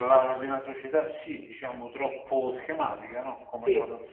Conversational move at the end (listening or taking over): listening